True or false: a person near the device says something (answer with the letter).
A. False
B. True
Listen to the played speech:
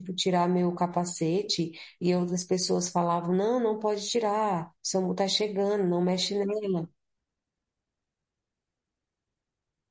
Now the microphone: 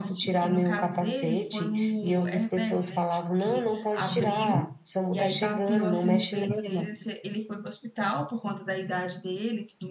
B